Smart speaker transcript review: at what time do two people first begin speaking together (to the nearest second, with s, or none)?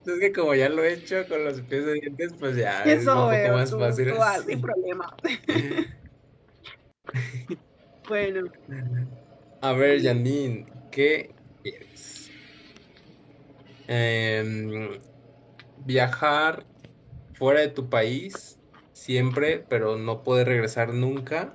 3 s